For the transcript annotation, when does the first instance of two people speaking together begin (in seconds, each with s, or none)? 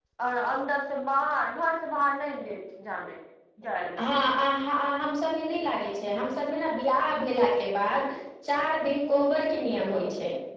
none